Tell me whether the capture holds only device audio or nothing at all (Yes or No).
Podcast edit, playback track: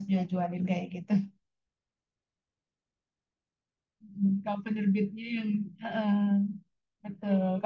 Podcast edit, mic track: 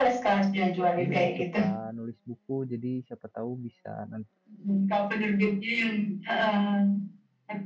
No